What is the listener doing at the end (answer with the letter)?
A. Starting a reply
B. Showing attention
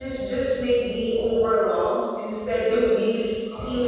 B